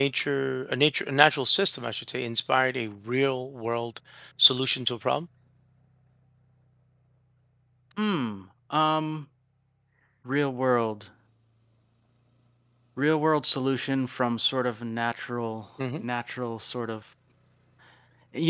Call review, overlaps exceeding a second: none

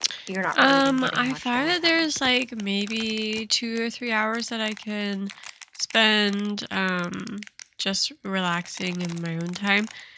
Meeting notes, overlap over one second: present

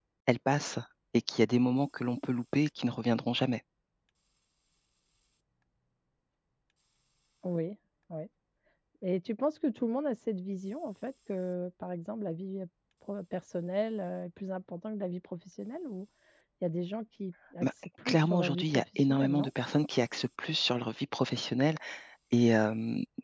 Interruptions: present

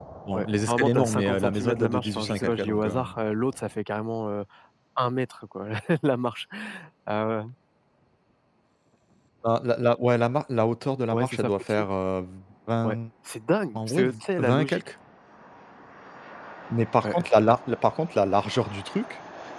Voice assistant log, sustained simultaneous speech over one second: present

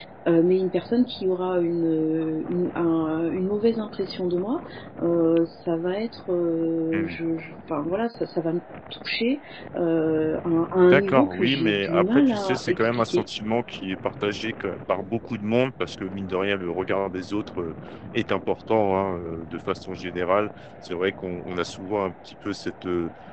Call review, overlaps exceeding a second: present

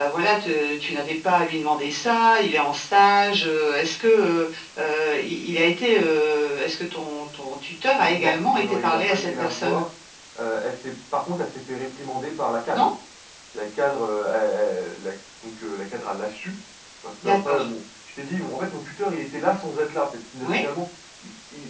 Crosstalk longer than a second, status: present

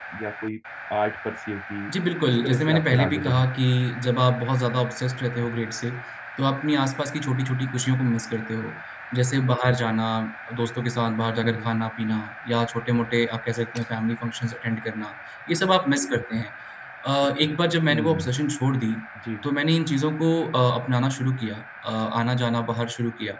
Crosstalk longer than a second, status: present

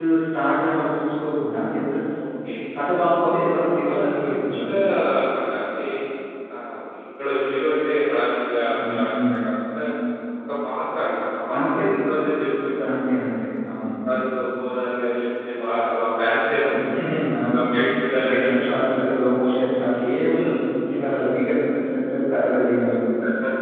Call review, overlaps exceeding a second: present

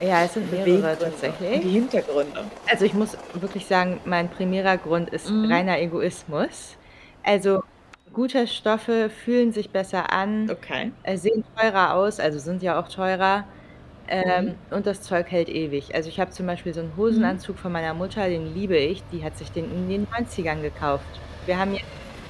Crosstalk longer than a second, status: present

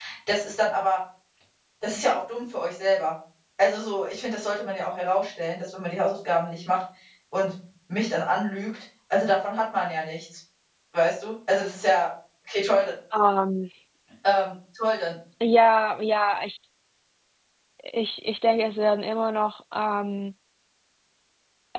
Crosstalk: none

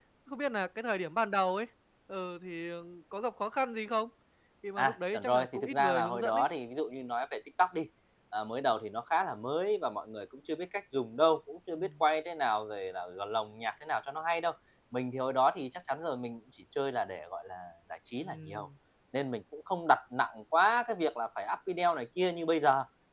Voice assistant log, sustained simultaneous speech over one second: present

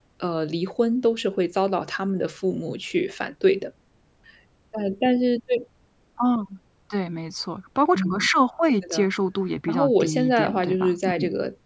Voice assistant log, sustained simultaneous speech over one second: present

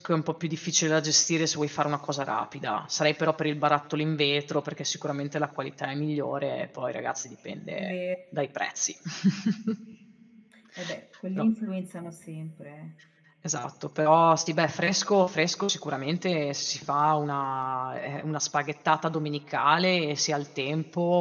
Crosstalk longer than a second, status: none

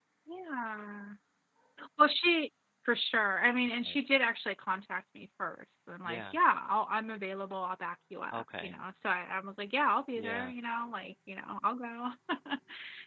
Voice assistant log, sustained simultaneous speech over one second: none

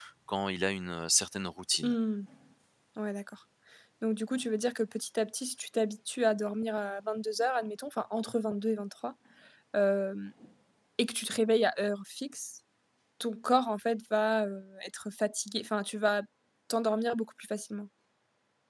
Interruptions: none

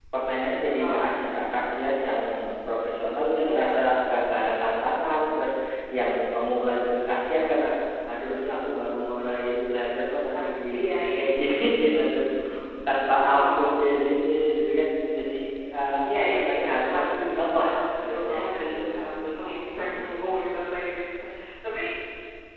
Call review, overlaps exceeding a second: present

